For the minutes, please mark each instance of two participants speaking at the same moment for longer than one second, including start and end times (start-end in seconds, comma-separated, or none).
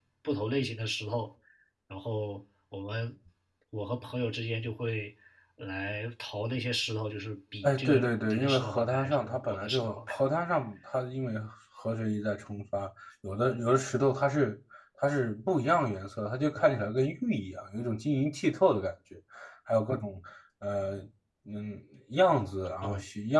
7.6-10.2